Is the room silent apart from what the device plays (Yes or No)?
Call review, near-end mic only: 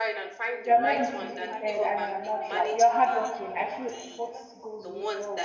No